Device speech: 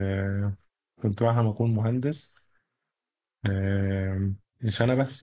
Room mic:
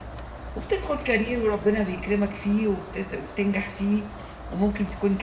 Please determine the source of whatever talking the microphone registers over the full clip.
user only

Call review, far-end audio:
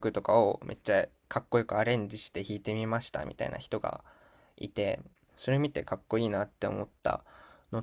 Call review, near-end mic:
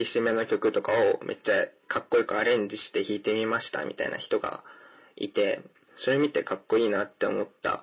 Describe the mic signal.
echo only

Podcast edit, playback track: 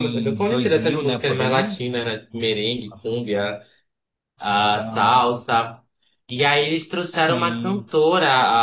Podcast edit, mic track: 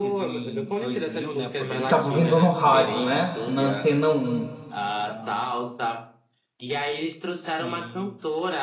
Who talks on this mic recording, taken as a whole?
both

